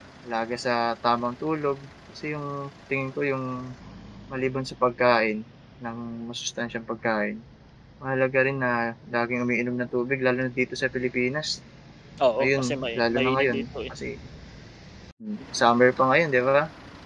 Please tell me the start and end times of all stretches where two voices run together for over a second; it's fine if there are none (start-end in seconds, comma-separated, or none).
12.4-13.6